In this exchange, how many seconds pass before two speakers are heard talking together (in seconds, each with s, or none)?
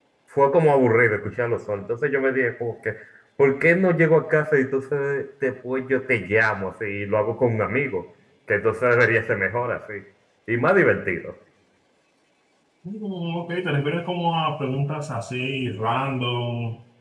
none